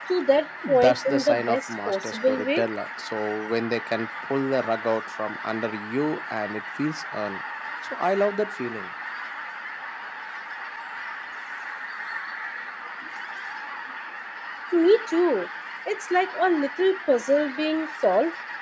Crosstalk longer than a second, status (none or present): present